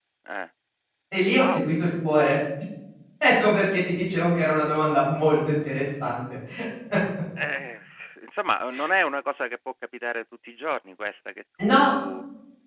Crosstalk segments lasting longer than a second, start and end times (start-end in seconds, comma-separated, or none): none